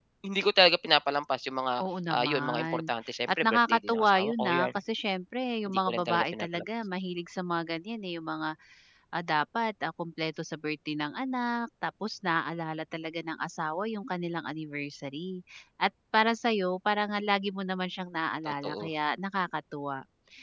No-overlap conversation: No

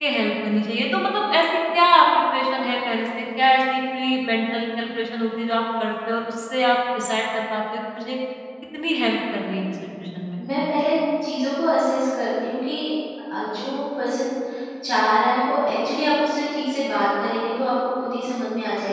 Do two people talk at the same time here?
No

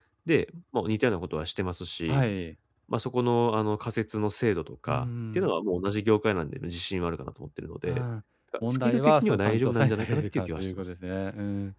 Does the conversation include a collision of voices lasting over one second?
Yes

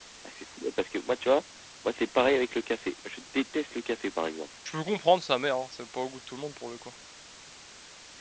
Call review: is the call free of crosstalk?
Yes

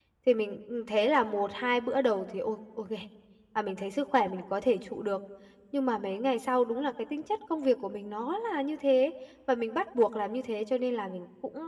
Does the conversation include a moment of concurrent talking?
No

